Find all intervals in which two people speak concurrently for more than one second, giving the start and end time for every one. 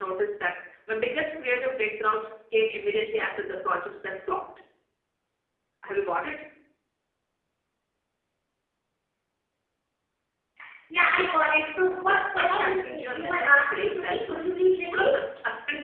12.4-14.5

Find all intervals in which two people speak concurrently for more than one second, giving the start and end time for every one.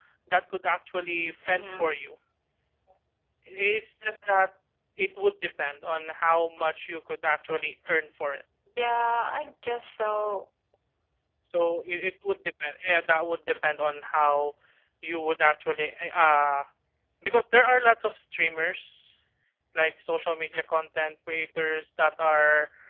none

